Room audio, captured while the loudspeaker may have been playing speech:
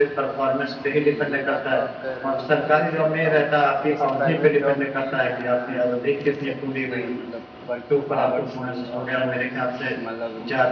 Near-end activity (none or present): present